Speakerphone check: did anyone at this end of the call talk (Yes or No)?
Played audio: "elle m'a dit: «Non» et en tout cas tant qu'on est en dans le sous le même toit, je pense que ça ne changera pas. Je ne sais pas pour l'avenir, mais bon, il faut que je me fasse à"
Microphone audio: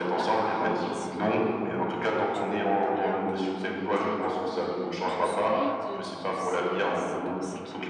Yes